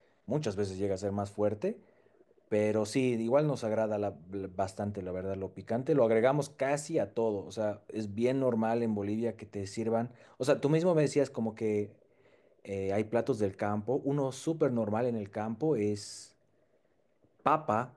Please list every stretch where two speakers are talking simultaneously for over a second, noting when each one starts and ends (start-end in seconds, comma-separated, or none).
none